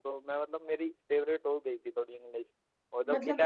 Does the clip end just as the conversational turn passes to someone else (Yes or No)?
Yes